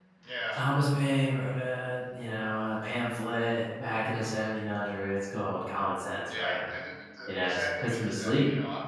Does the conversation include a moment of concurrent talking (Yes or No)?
Yes